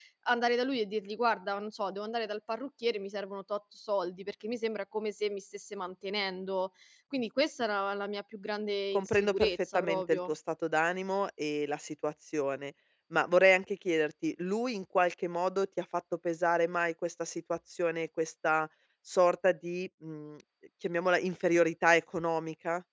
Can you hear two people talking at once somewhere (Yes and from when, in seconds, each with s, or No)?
Yes, from 8.9 s